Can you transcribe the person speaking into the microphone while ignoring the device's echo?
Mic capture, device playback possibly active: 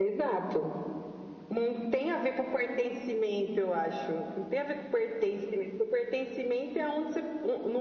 none

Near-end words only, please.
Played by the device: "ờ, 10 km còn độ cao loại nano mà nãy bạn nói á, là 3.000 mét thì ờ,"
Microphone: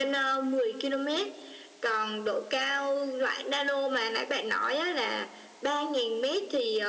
none

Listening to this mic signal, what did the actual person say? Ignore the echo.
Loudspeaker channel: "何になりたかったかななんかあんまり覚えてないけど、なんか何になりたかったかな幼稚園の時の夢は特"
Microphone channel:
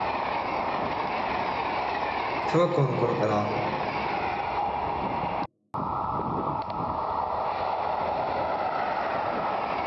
小学校の頃から

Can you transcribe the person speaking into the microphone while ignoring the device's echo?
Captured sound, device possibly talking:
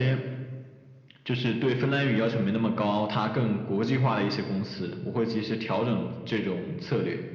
none

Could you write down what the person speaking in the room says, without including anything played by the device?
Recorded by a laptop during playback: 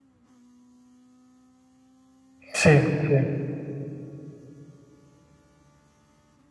Sì, sì.

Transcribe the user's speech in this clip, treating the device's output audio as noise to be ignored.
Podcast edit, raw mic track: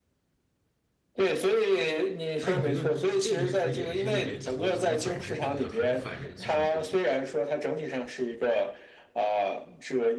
那你觉得这个是不是也是因为投资它本身就是个很反人性的事情，

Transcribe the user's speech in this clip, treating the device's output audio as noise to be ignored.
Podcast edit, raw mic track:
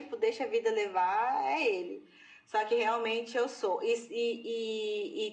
none

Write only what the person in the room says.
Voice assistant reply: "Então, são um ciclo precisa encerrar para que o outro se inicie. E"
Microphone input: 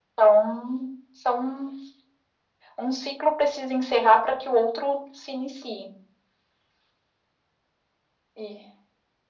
none

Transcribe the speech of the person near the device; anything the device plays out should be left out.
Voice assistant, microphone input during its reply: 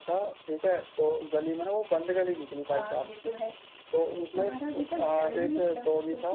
none

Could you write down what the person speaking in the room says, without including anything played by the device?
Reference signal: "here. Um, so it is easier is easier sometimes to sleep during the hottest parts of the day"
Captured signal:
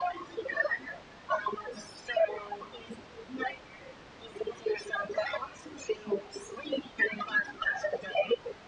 none

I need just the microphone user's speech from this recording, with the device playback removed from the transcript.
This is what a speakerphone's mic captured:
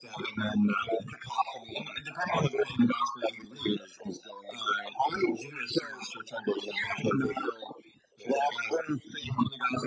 none

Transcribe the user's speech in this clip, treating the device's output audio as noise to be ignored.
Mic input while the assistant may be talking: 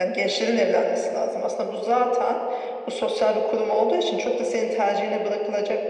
none

